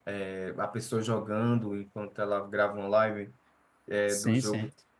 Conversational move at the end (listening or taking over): listening